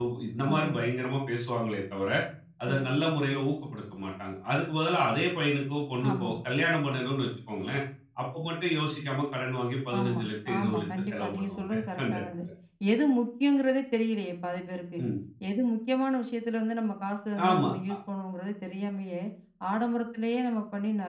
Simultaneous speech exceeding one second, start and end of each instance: 10.6-12.2

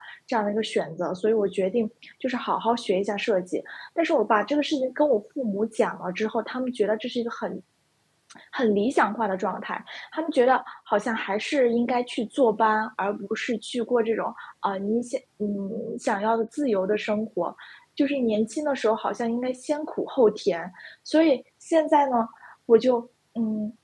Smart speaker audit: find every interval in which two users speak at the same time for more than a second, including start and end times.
none

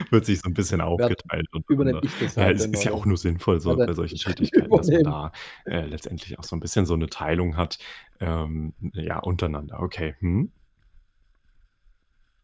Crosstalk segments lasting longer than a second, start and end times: 1.7-3.0, 3.7-5.2

